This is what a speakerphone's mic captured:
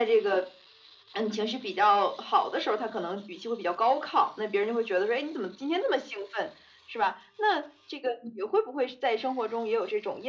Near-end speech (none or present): none